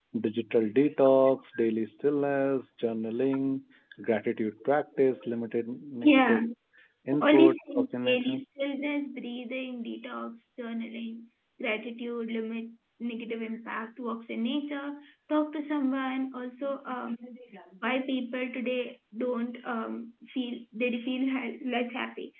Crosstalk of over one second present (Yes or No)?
Yes